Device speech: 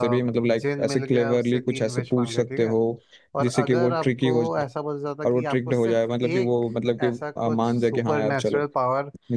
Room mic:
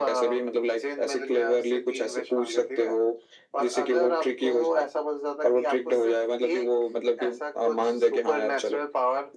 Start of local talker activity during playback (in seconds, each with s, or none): none